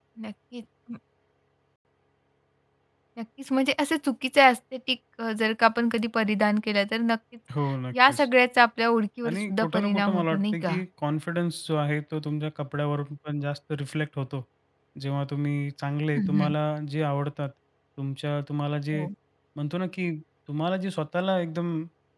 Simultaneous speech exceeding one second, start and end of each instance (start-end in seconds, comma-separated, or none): 9.3-10.8